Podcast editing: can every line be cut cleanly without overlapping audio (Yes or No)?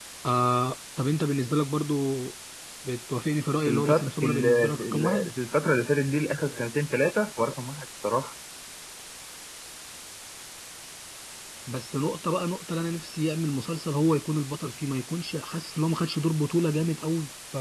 No